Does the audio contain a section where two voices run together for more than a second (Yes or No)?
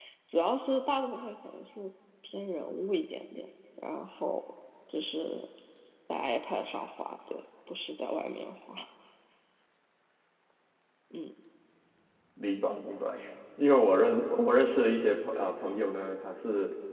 No